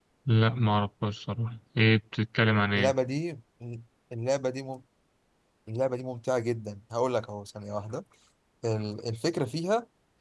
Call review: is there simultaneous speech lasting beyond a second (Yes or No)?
No